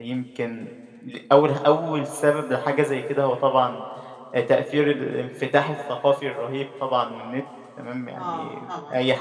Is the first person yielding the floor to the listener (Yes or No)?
No